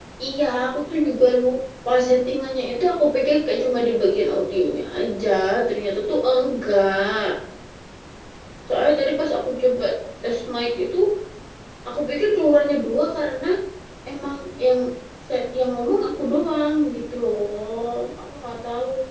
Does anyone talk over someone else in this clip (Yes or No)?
No